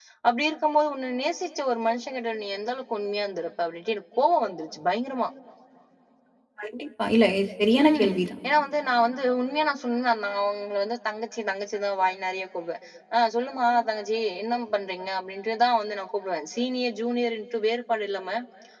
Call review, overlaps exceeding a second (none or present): none